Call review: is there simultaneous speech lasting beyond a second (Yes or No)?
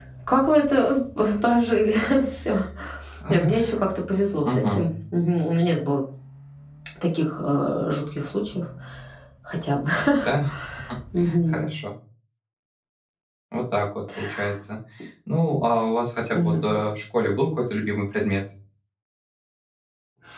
No